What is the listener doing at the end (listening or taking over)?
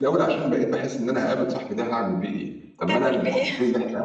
listening